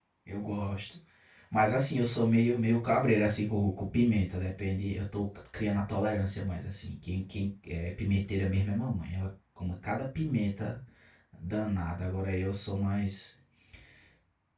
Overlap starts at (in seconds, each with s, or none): none